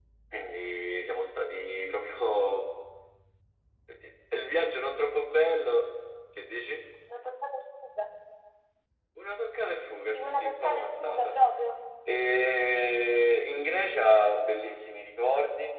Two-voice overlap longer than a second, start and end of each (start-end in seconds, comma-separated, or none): 10.1-11.3